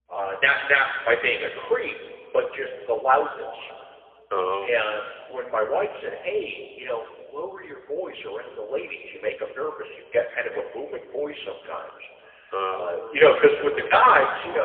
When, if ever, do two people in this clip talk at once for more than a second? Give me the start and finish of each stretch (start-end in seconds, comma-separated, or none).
12.8-14.0